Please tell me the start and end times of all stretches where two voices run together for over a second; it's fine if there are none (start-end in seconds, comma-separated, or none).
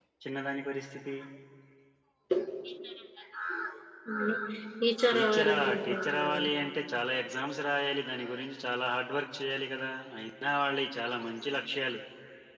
5.1-6.5